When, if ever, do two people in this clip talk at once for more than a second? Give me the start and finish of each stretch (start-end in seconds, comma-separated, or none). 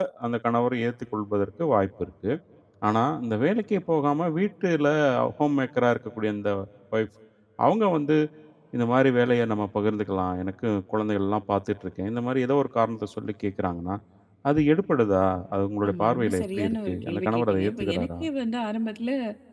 15.9-18.1